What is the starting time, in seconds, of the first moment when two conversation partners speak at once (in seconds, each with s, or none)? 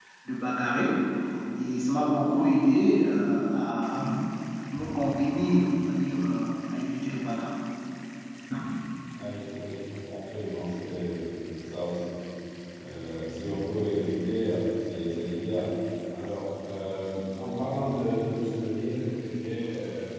none